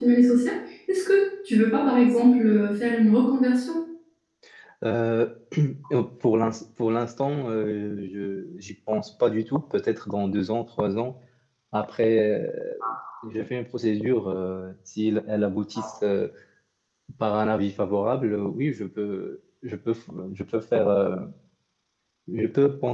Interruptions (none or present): none